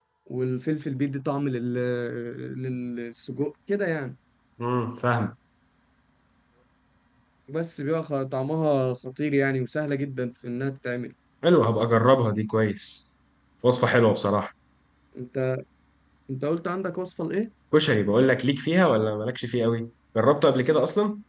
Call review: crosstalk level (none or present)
none